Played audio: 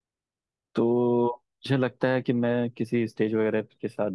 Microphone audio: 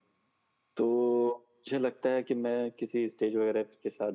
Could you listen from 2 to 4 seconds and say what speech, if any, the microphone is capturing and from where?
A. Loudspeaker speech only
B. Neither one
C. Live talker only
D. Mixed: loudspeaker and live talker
A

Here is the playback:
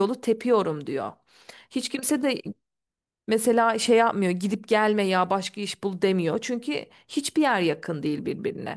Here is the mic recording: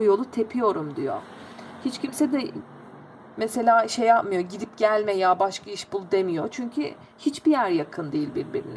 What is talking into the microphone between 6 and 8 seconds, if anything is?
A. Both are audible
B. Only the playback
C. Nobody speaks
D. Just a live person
B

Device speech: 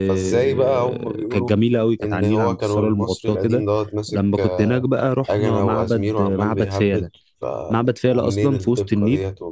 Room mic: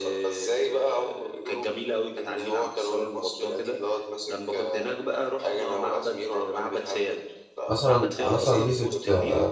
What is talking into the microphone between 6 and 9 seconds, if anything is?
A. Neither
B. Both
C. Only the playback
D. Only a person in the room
B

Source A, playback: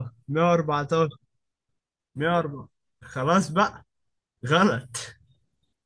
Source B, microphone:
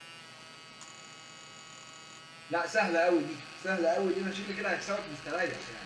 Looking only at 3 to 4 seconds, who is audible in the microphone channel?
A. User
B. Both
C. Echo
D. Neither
A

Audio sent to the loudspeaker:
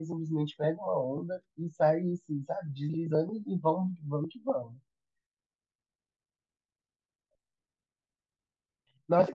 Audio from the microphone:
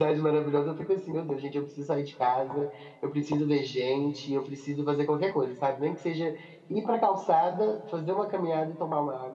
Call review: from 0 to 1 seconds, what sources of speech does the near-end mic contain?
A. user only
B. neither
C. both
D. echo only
A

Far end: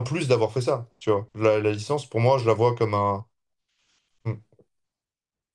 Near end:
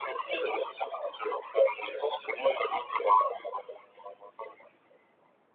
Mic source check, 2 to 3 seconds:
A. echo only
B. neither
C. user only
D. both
A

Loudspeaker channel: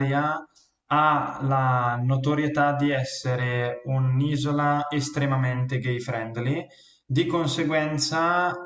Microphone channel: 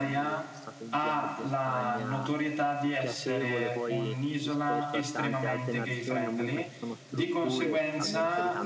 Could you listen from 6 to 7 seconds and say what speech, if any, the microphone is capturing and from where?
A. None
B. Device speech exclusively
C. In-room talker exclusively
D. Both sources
D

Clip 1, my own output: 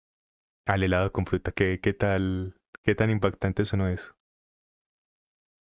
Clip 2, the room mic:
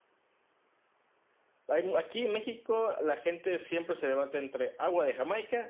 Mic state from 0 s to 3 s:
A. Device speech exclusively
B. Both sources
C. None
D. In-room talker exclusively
D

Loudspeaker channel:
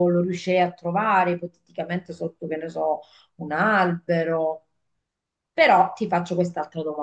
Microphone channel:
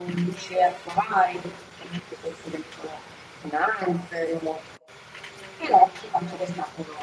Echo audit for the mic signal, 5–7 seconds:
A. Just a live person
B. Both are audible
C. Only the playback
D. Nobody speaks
C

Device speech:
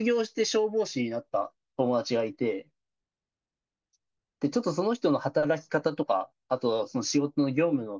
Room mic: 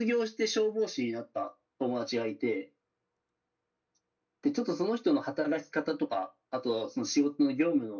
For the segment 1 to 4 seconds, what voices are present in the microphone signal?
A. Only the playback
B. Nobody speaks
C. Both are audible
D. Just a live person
A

